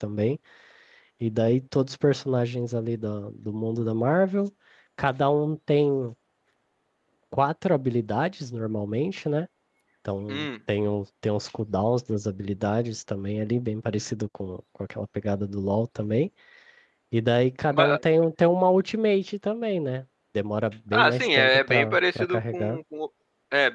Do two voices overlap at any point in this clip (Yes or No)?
Yes